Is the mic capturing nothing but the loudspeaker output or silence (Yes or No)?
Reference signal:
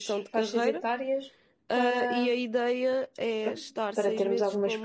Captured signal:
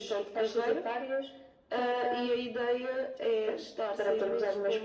Yes